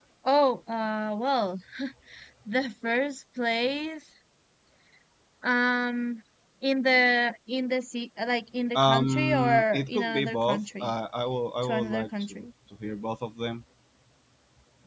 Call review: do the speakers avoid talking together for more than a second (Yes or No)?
No